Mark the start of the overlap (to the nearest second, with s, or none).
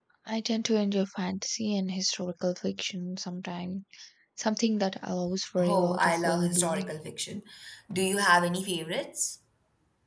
6 s